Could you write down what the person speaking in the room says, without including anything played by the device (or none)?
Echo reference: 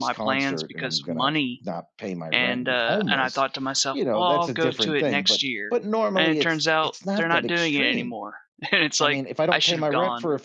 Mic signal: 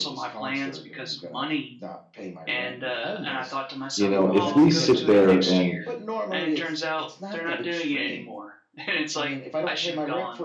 you know, if we sit there and